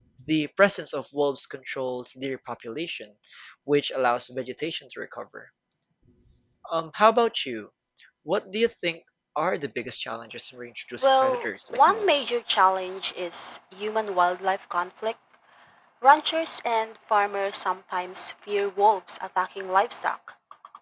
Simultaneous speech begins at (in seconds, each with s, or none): 11.0 s